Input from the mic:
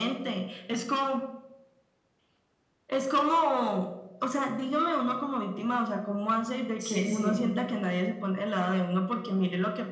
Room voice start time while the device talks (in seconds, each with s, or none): 6.8 s